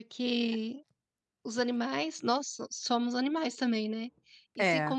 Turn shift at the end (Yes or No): No